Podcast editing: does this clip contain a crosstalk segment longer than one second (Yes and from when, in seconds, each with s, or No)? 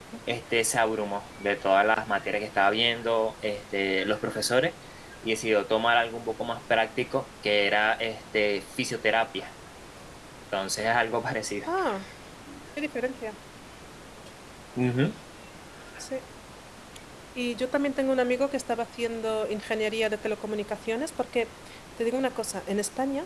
No